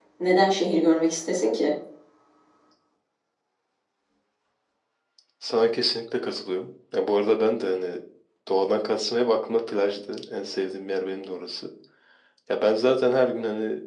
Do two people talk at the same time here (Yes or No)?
No